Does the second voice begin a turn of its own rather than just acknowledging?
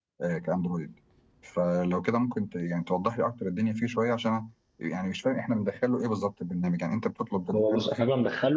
Yes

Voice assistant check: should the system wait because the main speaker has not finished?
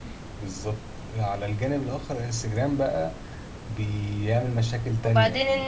No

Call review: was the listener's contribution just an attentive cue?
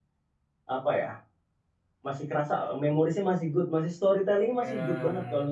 Yes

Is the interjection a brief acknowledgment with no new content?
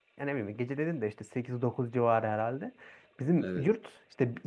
Yes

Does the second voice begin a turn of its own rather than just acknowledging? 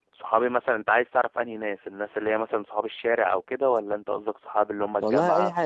Yes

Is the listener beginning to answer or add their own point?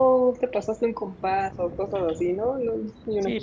Yes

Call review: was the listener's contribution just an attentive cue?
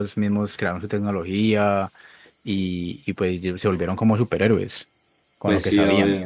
No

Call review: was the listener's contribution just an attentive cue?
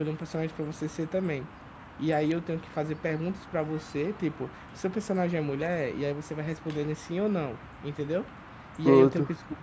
Yes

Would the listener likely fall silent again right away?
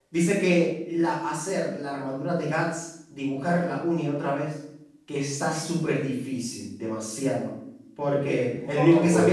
Yes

